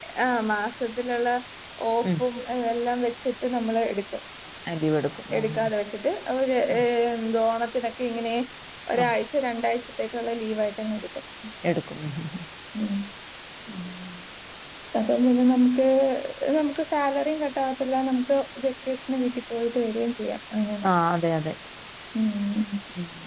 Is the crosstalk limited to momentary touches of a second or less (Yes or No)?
Yes